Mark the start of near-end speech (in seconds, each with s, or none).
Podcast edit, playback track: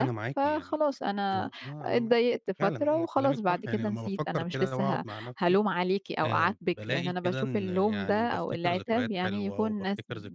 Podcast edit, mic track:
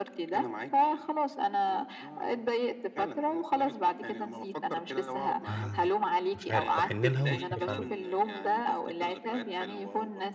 5.5 s